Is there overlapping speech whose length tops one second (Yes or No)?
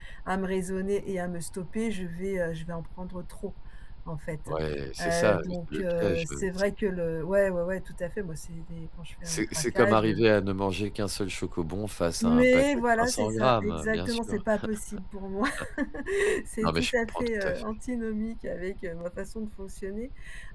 Yes